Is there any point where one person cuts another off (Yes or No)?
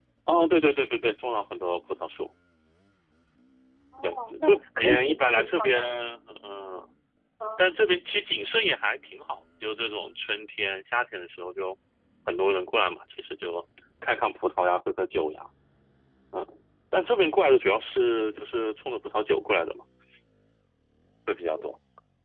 Yes